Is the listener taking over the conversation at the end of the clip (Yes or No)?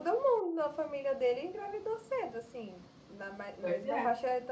No